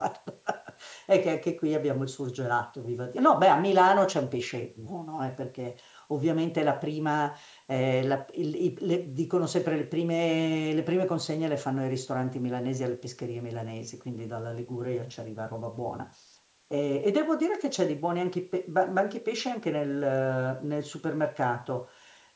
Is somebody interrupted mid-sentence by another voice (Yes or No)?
No